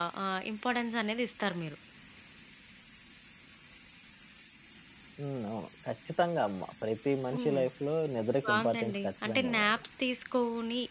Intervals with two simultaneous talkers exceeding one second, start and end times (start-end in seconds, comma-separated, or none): 8.4-9.8